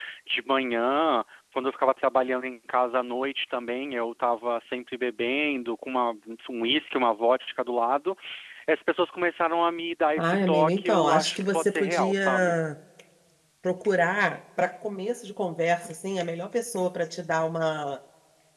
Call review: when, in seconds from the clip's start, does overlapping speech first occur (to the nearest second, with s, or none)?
10 s